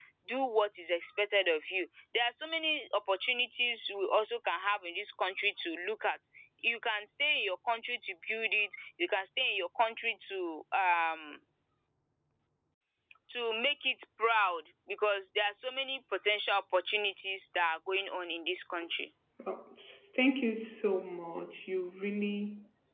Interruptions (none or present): none